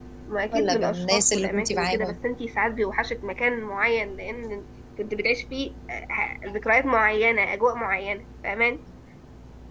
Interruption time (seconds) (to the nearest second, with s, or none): 1 s